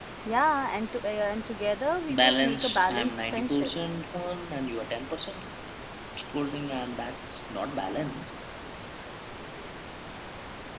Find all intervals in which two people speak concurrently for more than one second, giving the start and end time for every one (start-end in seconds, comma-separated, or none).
2.1-3.7